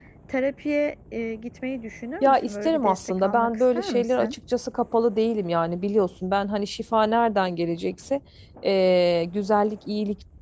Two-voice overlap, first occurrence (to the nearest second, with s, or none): 2 s